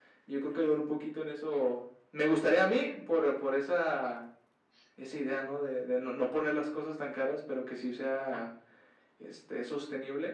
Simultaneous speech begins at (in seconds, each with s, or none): none